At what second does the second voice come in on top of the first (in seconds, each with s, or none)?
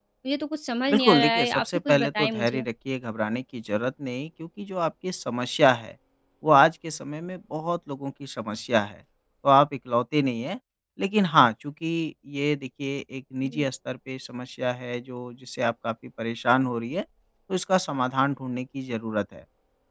0.9 s